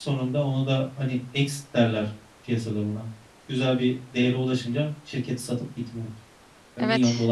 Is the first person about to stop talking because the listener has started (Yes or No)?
Yes